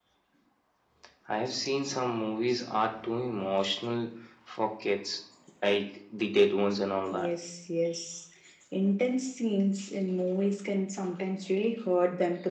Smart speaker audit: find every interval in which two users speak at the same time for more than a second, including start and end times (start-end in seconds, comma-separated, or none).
none